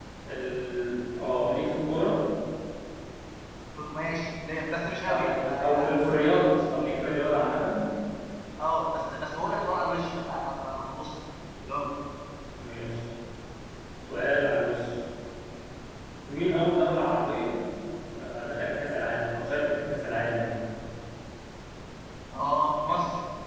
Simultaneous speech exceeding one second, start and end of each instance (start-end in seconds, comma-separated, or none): 5.0-6.6